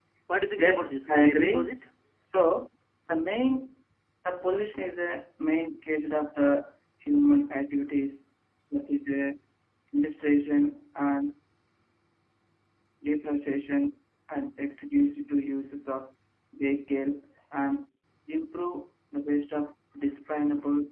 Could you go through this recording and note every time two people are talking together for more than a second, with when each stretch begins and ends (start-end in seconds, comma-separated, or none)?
0.6-1.8